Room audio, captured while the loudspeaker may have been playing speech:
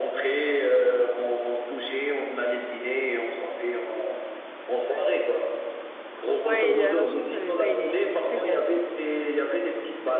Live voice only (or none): Ouais, et alors je crois que je l'avais fait, il est, il est très bien.